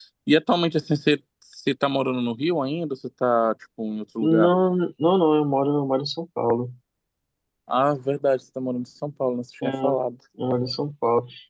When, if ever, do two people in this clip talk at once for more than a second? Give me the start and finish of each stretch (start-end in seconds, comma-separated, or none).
none